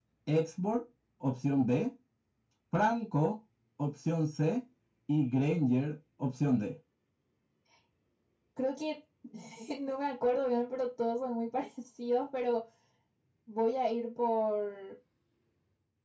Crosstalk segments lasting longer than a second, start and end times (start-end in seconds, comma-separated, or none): none